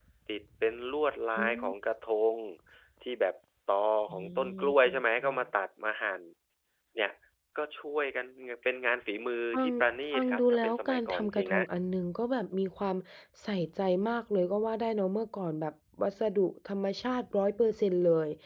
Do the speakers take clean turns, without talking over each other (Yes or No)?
No